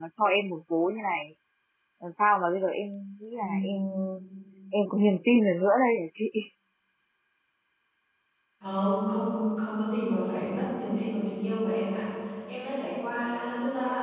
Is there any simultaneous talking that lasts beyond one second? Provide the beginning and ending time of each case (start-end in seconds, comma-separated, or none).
none